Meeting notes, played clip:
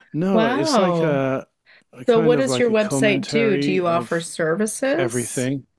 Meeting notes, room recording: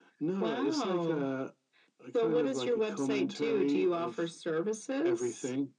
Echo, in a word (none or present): present